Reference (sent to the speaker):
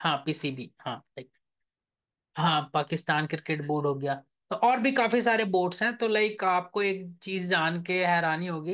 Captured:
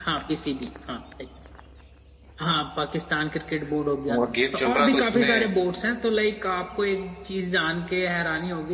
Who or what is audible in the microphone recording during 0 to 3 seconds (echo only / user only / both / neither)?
echo only